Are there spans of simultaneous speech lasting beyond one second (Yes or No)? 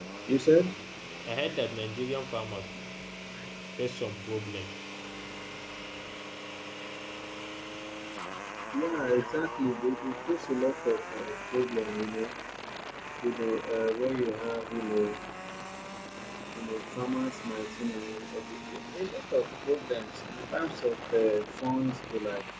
No